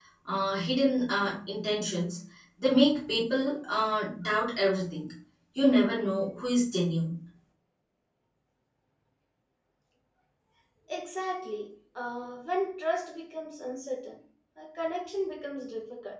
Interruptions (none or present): none